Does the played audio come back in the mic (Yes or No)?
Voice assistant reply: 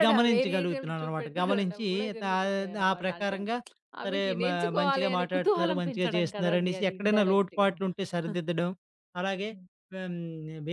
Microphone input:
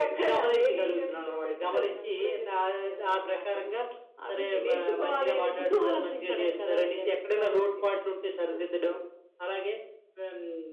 Yes